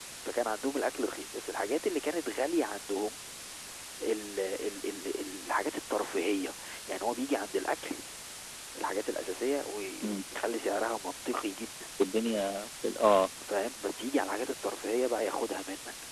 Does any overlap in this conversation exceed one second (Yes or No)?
No